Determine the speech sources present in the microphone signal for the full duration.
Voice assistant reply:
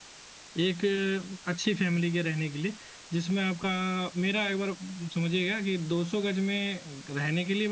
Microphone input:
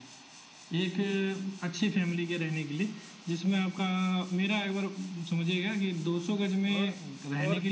both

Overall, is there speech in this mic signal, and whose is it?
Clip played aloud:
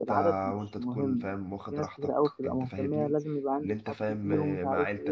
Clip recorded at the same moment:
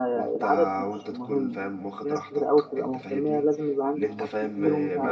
both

